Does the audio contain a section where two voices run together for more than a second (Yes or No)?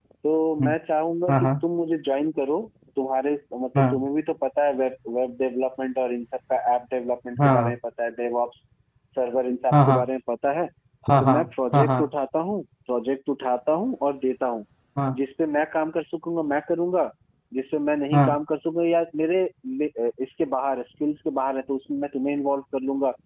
No